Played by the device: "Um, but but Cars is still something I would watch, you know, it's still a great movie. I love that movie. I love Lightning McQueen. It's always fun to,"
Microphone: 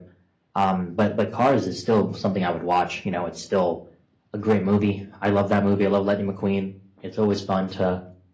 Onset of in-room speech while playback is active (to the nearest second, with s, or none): none